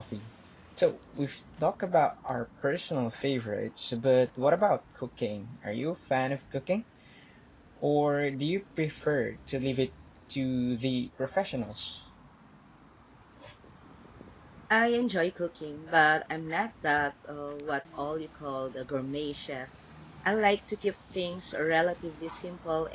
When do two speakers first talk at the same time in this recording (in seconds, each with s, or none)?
none